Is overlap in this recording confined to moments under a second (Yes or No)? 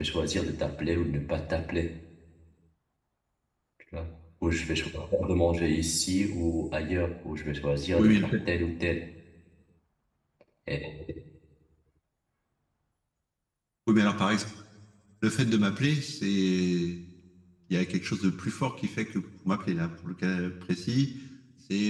Yes